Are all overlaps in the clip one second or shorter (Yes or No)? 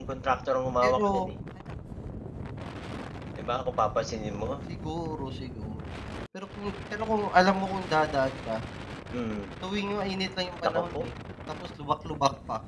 Yes